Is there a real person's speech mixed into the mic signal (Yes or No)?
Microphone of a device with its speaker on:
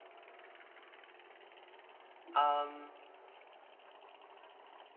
Yes